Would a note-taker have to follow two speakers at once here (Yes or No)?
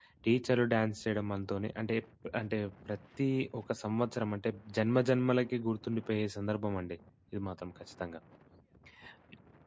No